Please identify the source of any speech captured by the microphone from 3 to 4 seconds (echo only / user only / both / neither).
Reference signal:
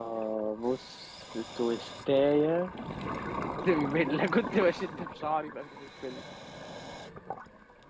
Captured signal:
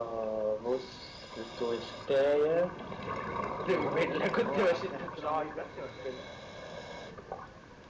both